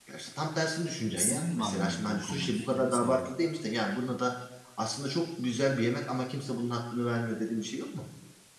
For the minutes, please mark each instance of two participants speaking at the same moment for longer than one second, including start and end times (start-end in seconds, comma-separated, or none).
1.2-3.2